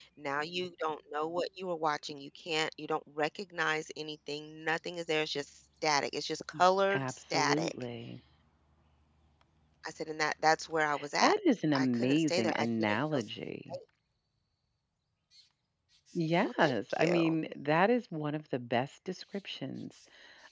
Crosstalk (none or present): present